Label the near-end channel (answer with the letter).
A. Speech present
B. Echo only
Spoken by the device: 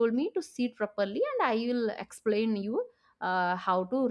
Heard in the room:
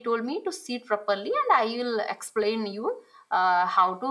B